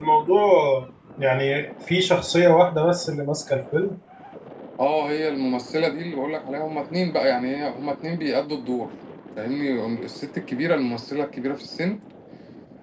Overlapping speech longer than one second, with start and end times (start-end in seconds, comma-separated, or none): none